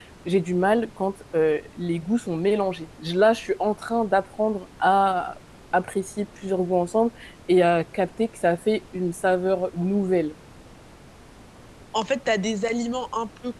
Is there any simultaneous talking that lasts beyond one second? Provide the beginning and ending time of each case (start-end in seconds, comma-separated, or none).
none